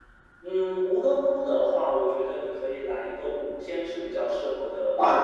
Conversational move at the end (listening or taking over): taking over